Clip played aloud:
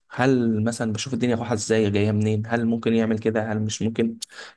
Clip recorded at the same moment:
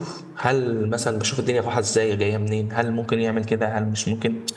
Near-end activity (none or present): none